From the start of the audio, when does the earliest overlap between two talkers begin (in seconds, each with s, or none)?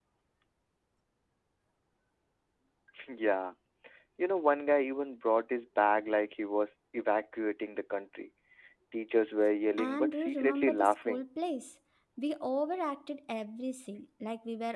9.8 s